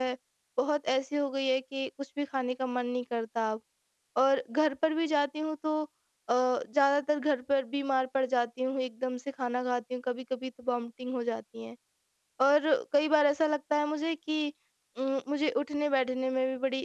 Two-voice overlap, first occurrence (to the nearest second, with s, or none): none